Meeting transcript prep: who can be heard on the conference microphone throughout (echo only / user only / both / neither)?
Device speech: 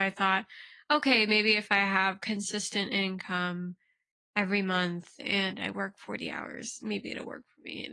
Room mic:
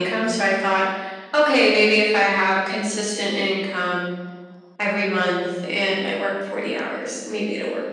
echo only